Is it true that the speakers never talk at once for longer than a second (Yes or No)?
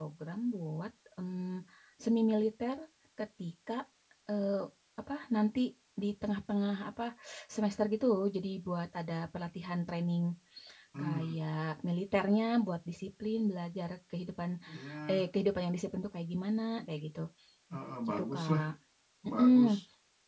Yes